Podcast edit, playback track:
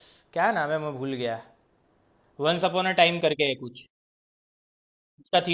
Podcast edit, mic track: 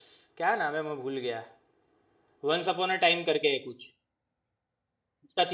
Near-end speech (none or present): none